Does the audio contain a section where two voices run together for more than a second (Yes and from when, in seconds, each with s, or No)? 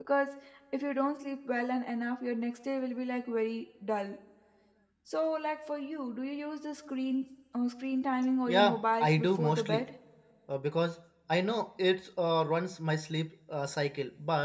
Yes, from 8.5 s